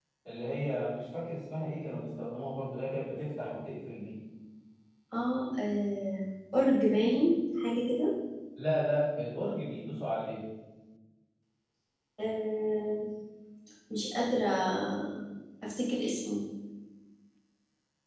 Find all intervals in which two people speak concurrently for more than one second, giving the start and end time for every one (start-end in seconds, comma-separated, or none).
none